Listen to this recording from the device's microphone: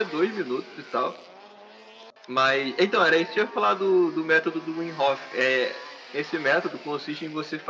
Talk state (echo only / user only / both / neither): echo only